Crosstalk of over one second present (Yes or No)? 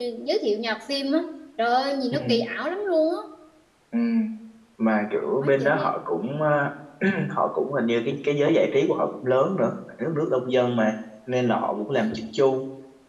No